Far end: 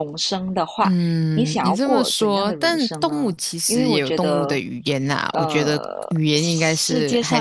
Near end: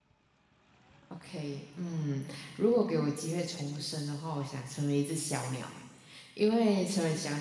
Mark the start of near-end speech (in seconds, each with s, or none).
1.1 s